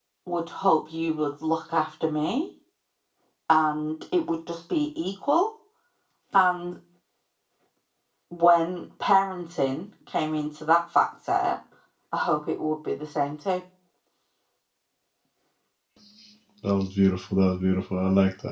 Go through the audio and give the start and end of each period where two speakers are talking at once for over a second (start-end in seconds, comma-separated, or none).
none